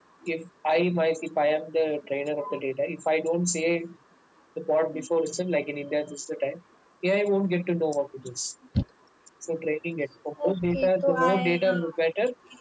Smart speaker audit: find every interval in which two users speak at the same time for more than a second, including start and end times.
10.5-11.8

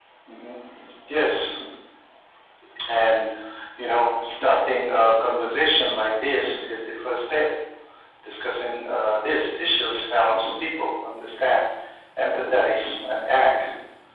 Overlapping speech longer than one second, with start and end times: none

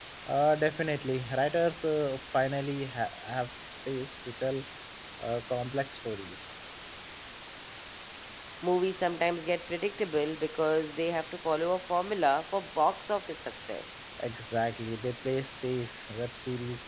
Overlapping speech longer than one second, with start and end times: none

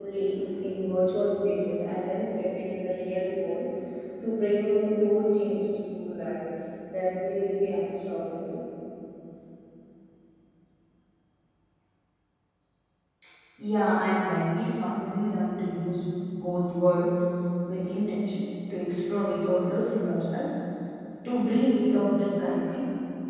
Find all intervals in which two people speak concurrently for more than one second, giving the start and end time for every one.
none

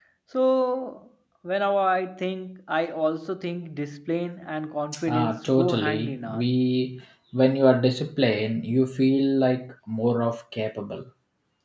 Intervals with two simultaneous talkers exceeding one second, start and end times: 5.1-6.5

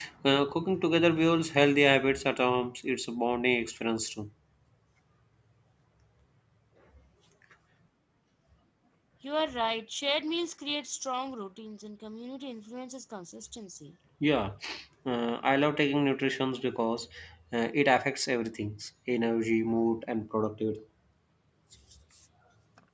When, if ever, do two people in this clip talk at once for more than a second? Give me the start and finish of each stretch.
none

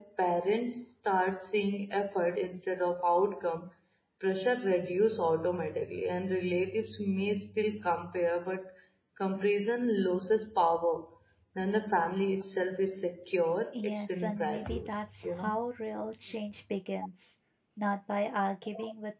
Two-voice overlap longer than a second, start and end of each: 13.7-15.6

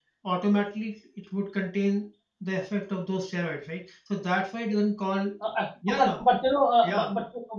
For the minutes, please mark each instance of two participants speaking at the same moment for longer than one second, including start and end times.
none

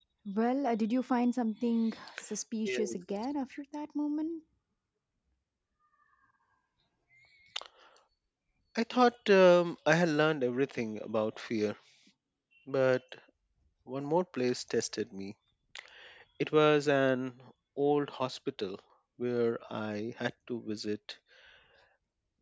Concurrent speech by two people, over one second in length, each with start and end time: none

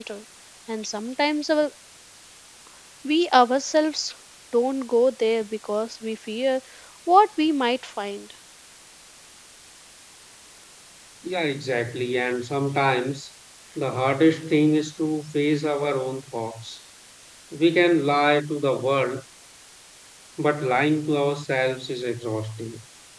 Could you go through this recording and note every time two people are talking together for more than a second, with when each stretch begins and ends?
none

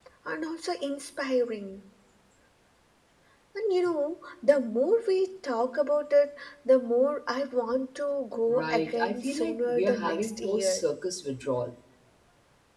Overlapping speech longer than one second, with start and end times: 8.5-10.8

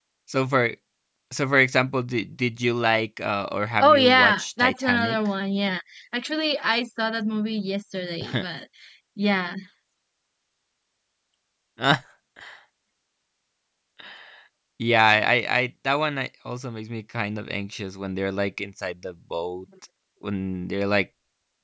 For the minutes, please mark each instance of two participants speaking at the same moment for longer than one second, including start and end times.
3.8-5.2

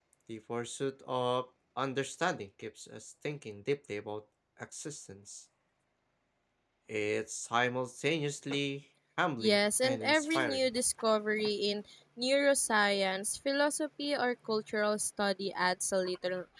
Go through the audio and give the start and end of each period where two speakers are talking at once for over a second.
9.4-10.7

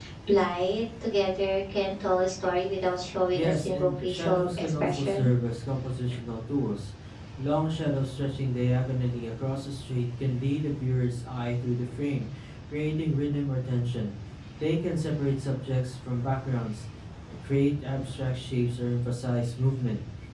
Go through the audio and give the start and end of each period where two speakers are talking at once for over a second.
3.3-5.3

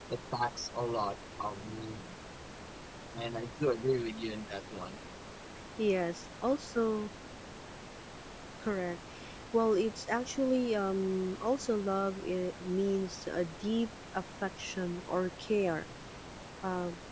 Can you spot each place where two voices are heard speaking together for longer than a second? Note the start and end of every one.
none

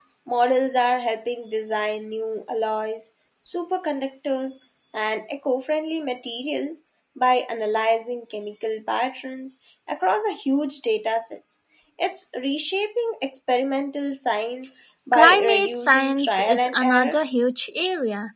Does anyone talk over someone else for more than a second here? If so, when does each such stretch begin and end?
15.1-17.2

